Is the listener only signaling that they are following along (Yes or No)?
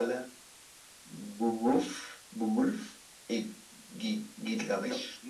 No